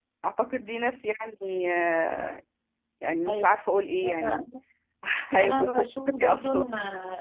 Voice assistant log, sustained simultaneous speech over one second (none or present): present